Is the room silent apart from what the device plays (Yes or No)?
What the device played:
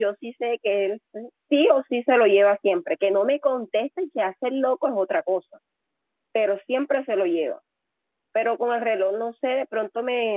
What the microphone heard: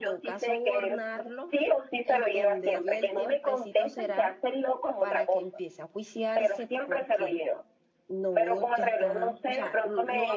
No